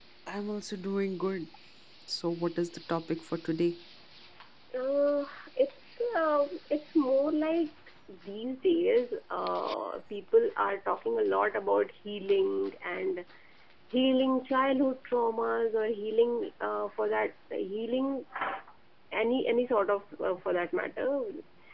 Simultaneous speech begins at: none

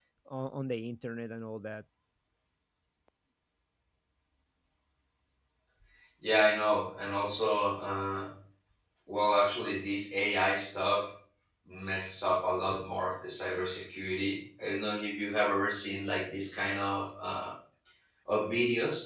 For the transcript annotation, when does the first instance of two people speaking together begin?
none

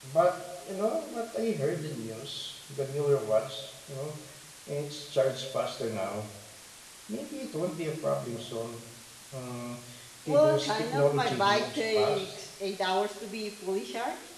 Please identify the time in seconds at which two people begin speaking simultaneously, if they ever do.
10.3 s

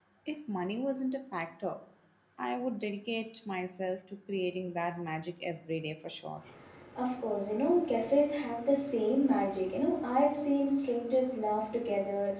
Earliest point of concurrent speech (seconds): none

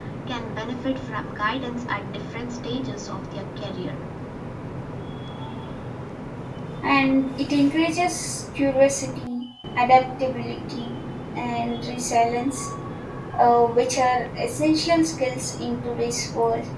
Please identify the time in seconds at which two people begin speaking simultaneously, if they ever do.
none

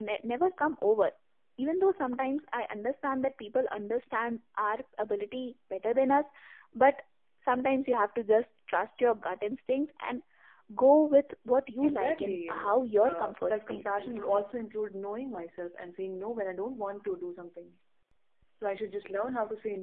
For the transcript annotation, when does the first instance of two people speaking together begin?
11.8 s

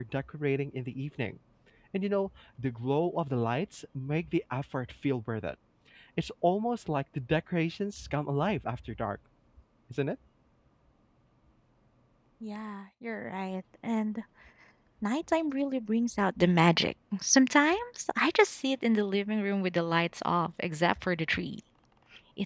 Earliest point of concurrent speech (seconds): none

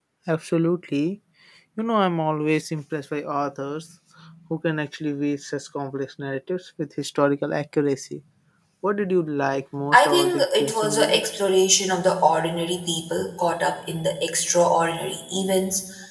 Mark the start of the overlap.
9.9 s

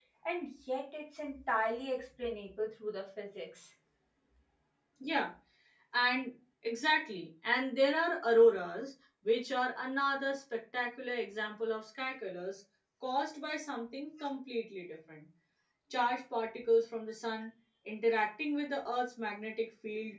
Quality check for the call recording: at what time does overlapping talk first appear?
none

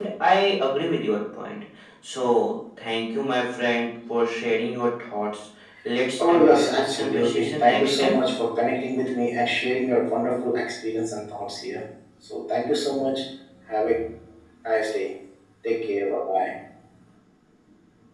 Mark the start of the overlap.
6.2 s

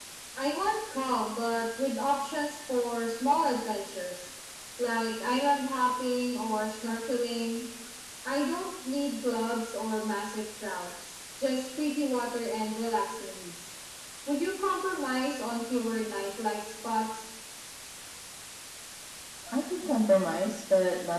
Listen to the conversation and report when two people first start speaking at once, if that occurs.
none

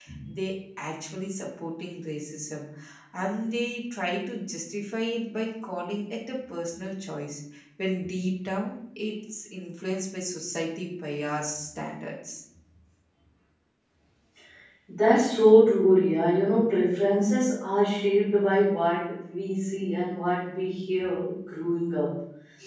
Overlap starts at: none

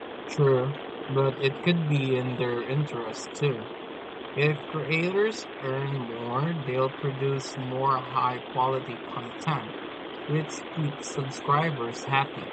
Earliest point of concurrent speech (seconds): none

